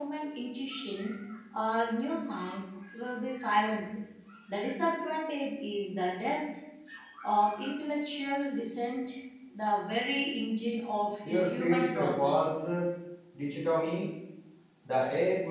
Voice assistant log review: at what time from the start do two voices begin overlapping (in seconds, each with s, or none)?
11.2 s